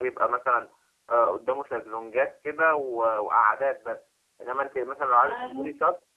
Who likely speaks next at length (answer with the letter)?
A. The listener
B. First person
B